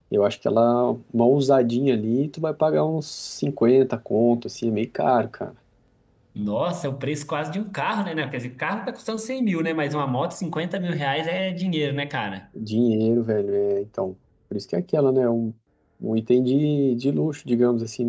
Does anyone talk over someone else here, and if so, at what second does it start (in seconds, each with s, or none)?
none